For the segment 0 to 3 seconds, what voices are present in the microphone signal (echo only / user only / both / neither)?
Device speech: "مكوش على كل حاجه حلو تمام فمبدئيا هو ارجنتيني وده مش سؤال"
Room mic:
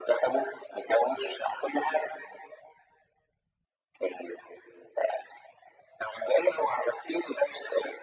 echo only